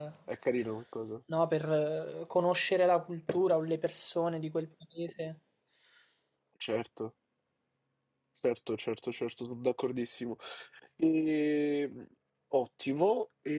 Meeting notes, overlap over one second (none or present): none